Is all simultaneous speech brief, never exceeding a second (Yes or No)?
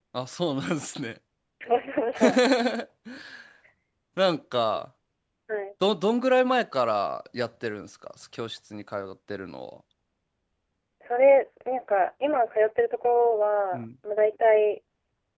Yes